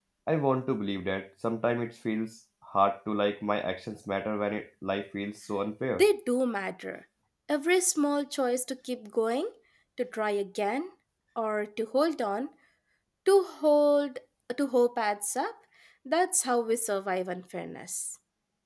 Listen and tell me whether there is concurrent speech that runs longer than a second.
No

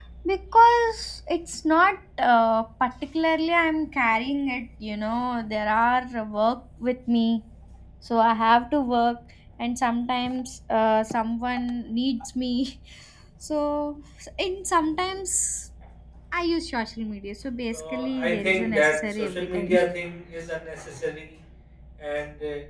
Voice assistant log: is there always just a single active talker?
No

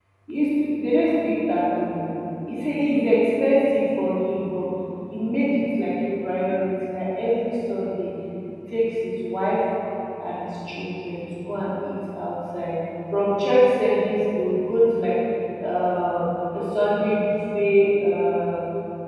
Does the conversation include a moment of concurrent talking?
No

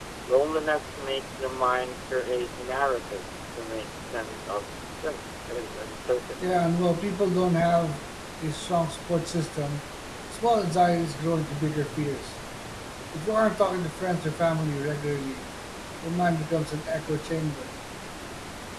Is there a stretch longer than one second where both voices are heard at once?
No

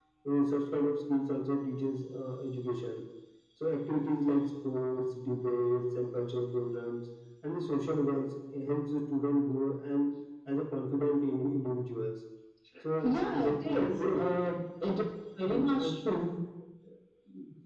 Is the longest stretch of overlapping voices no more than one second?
No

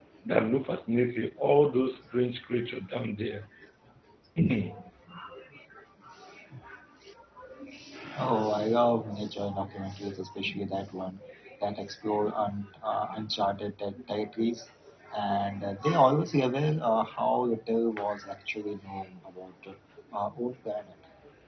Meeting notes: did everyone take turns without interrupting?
Yes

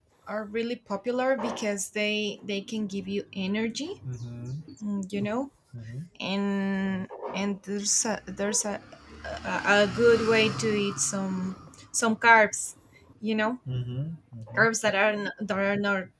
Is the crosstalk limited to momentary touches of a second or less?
Yes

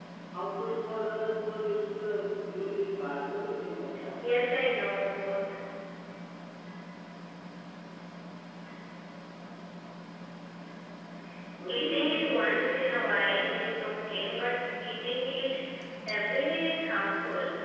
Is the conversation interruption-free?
No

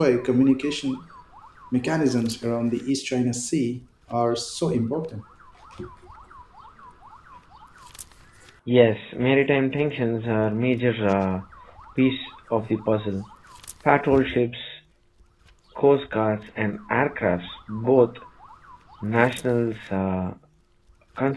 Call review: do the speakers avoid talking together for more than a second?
Yes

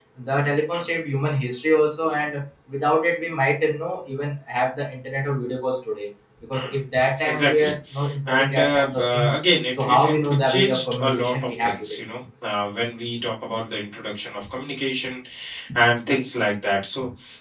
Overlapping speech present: Yes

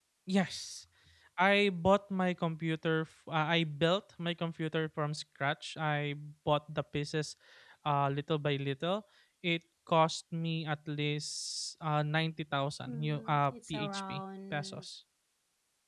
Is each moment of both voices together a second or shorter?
No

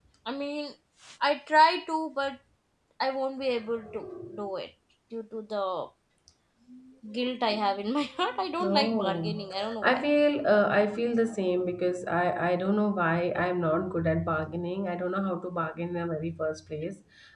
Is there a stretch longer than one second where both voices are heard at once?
Yes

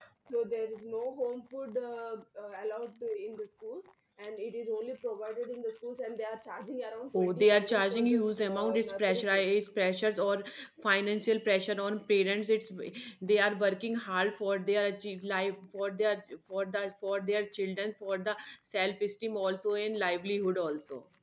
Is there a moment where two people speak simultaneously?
Yes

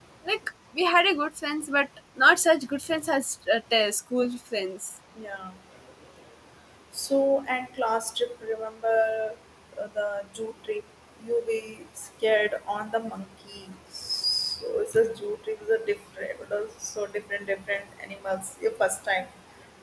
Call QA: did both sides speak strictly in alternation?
Yes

